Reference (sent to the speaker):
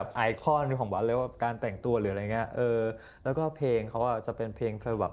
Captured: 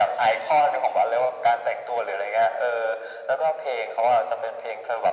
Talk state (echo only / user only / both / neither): echo only